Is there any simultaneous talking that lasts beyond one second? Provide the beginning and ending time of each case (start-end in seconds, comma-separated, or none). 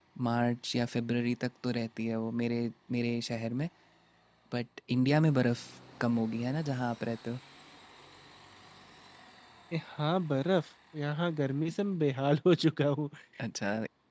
none